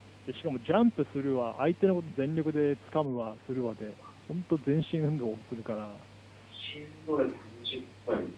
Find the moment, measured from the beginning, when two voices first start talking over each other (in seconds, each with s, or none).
none